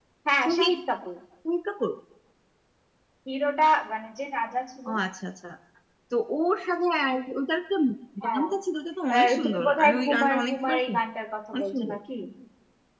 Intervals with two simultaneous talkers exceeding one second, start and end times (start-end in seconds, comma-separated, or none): 9.1-11.0